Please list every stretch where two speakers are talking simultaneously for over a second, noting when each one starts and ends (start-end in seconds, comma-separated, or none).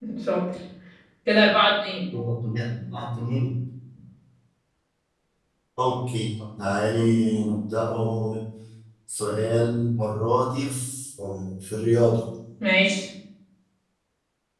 none